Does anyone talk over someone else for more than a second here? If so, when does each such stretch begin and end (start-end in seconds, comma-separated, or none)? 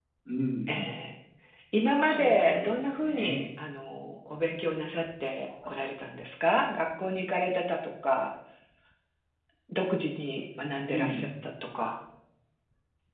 2.0-3.5